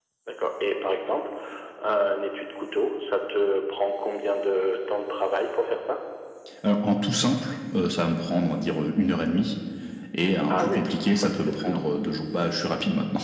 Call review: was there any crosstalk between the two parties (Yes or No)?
Yes